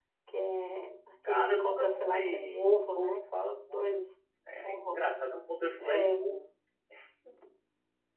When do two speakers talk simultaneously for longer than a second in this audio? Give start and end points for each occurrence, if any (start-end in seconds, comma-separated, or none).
1.3-4.0